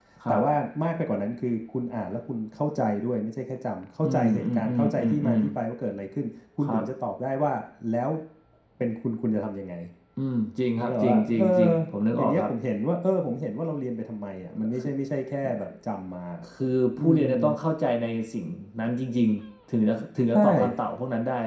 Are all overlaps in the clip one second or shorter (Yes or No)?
No